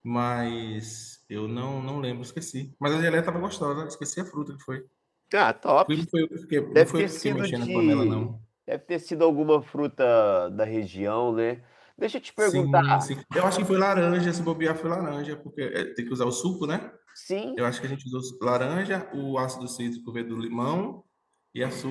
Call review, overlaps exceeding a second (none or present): present